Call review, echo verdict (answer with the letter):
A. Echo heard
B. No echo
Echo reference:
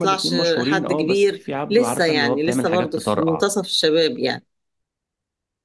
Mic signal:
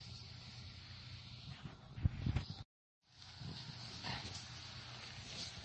B